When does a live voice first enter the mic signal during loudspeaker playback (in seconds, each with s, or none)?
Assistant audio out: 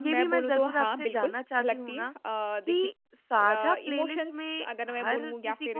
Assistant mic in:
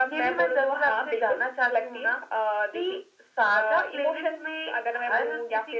none